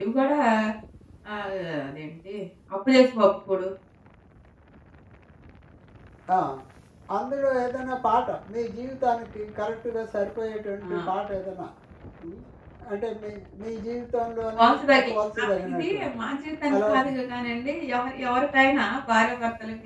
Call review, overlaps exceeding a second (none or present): present